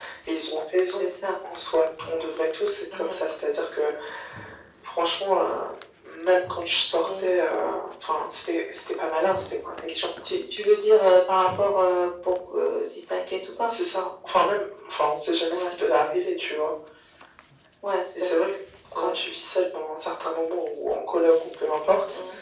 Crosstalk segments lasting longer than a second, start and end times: none

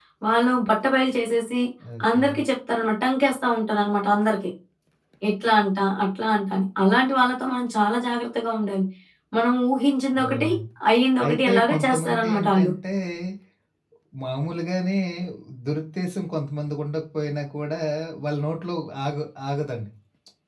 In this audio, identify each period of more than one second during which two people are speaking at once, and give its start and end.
11.3-12.7

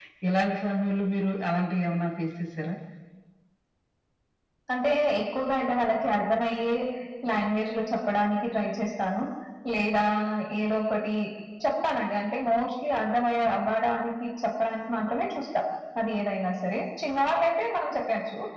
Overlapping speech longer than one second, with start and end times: none

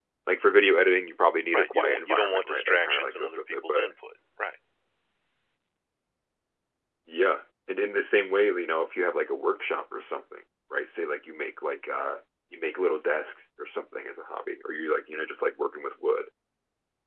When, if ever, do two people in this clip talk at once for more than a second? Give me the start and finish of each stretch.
1.5-3.9

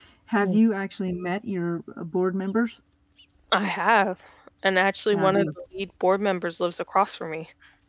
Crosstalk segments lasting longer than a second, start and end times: none

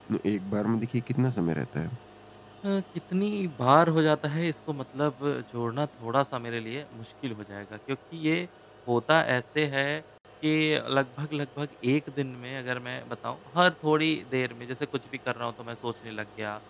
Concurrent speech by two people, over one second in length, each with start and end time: none

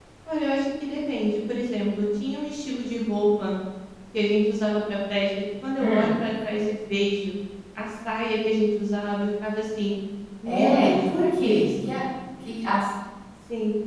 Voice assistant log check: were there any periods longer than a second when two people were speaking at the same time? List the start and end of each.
10.4-12.0

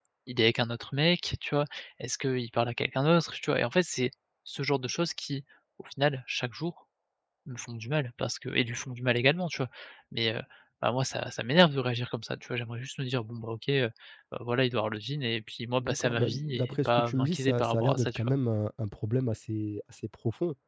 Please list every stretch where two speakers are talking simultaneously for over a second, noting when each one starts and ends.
15.8-18.3

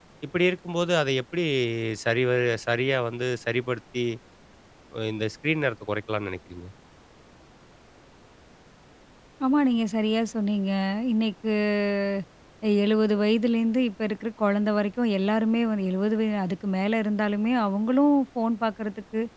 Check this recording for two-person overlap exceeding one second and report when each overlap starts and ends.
none

